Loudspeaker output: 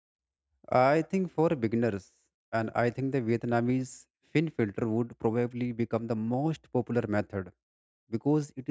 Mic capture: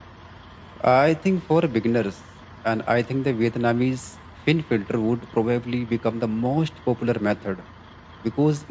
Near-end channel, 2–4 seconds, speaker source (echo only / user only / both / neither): echo only